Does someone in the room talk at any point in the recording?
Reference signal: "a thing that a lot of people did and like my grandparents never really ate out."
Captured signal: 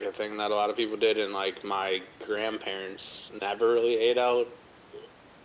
No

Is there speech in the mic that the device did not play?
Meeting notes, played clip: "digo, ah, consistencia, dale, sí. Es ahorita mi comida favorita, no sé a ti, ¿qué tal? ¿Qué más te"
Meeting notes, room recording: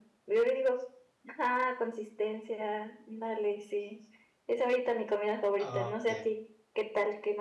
Yes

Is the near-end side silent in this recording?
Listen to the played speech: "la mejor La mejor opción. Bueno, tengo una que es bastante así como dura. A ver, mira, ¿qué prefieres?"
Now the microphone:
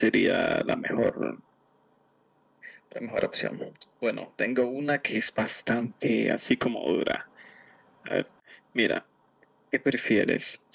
Yes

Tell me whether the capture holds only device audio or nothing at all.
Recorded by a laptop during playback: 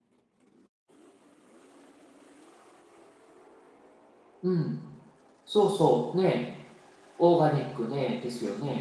No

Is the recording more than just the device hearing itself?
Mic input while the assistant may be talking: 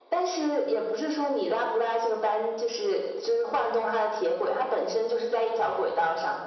No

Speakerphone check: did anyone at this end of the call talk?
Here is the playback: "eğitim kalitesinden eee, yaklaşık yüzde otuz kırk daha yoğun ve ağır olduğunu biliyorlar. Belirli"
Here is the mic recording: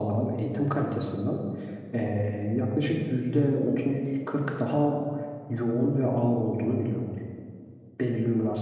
No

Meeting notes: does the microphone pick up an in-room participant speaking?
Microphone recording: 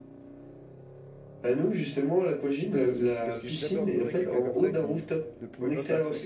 Yes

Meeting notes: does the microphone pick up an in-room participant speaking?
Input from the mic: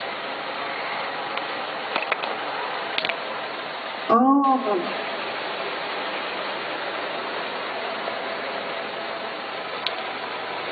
Yes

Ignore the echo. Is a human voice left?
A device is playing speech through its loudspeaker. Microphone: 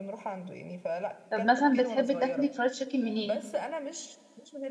Yes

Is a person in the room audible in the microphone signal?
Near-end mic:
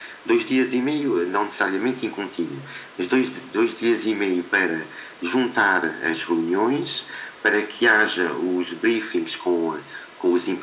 No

